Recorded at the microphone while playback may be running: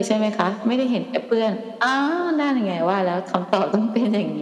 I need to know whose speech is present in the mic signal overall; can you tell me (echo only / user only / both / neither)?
echo only